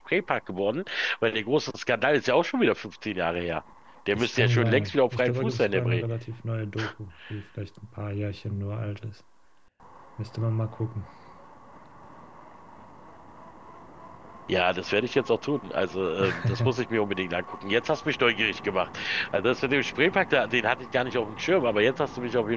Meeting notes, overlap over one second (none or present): present